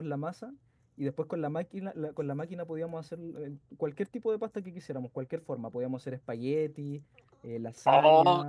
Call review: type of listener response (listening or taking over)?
taking over